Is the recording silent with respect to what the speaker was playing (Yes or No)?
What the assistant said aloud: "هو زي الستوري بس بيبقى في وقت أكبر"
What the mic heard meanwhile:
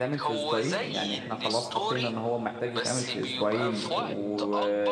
No